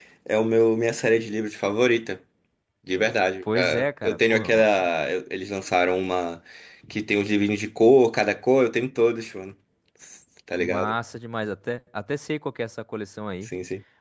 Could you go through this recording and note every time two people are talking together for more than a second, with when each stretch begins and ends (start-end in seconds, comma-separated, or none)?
3.4-4.7